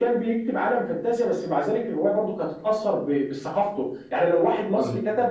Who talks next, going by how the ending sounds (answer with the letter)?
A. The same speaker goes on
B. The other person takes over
A